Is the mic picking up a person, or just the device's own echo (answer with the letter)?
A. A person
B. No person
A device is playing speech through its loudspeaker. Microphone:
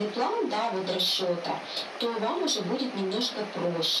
B